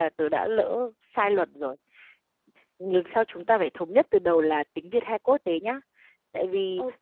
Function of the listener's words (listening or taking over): listening